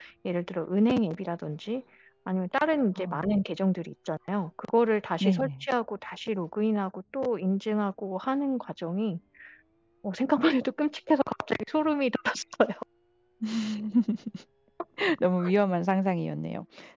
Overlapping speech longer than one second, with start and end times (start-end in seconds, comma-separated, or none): none